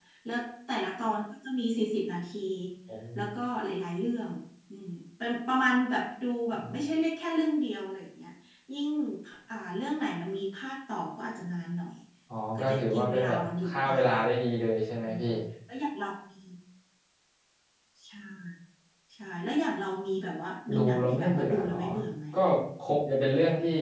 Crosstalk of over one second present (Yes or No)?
Yes